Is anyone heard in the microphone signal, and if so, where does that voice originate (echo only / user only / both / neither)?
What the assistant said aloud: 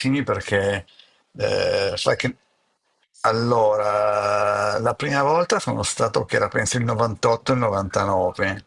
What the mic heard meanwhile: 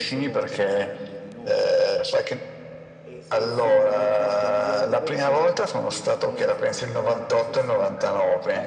both